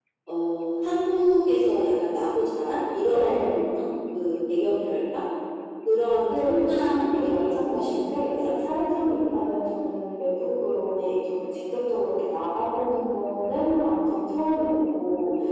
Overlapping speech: Yes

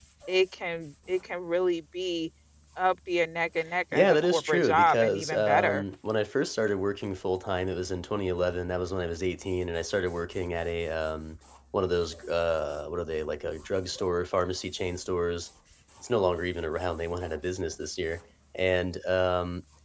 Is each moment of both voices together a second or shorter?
No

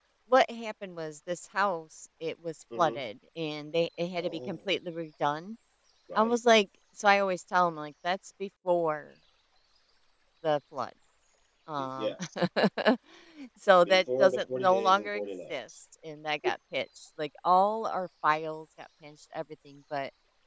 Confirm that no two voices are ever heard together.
No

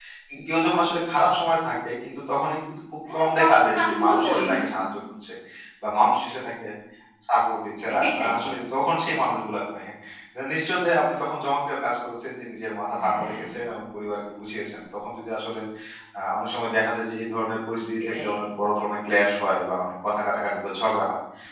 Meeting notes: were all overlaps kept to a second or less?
No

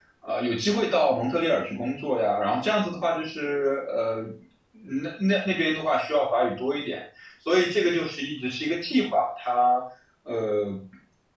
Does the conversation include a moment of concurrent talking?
No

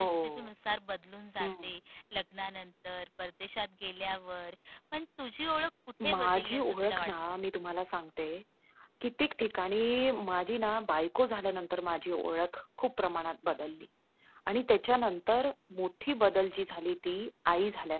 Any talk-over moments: Yes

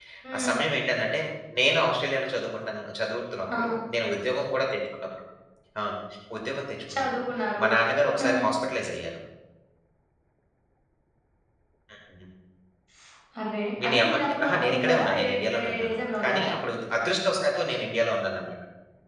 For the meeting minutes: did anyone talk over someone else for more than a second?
Yes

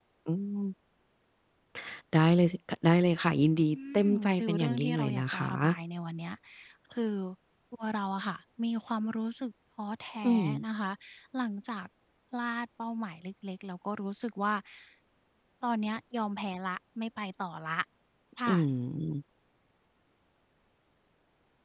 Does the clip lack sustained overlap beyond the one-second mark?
No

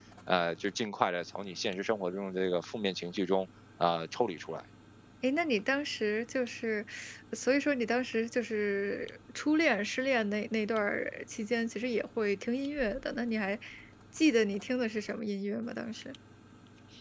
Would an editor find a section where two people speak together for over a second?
No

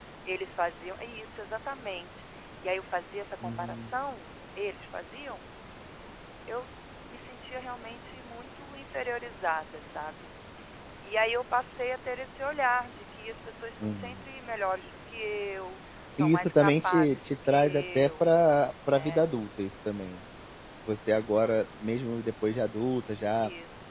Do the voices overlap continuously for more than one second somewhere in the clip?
Yes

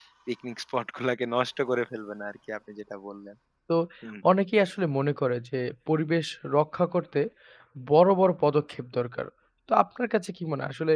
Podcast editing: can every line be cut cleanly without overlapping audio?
Yes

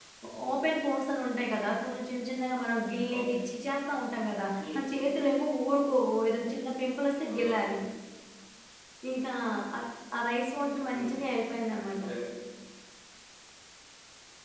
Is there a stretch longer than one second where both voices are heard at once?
No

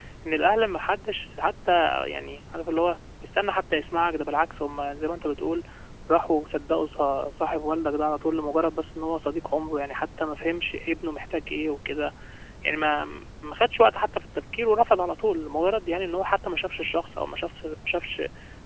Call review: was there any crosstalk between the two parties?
No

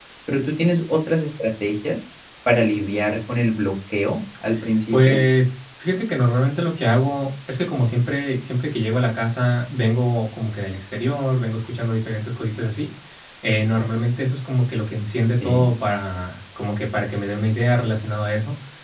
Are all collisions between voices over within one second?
Yes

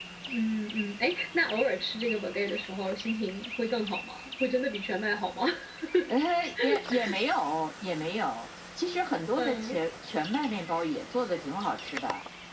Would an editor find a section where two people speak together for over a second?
No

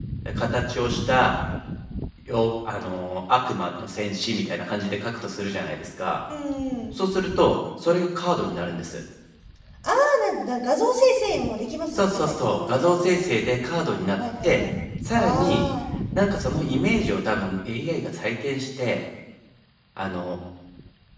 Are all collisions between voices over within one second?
No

